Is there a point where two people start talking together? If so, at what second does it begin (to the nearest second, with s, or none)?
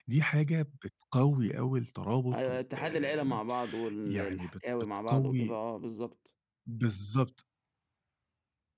2 s